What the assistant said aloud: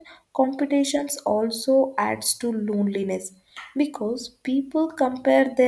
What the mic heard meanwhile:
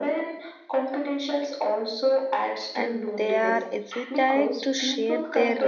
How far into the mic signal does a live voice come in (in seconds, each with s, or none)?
2.8 s